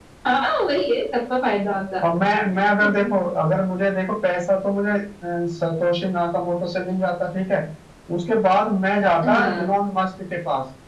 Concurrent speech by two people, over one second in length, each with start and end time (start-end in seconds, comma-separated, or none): none